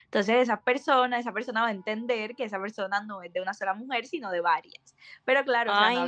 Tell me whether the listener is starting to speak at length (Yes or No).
No